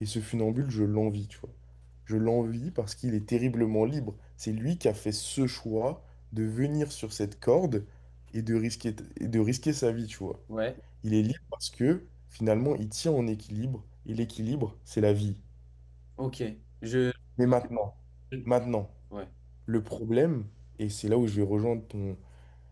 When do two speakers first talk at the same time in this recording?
none

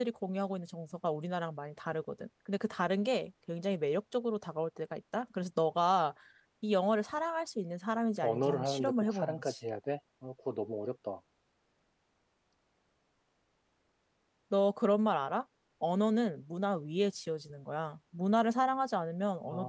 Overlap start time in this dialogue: 8.2 s

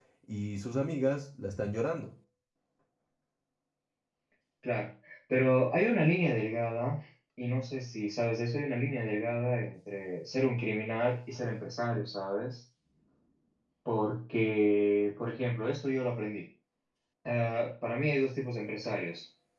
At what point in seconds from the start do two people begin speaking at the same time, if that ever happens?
none

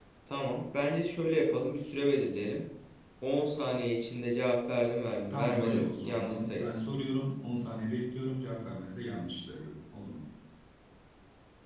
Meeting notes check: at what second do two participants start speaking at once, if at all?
5.3 s

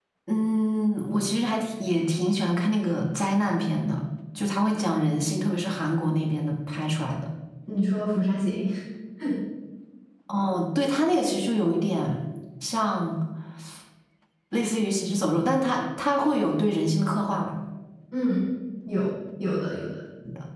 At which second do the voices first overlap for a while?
none

